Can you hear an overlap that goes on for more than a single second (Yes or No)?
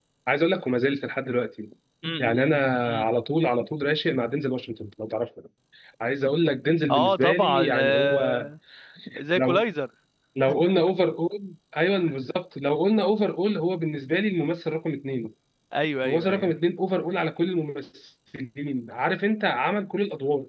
Yes